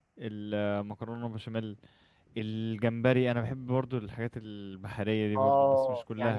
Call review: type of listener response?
taking over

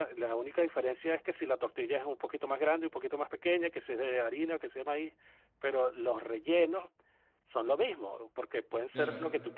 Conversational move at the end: listening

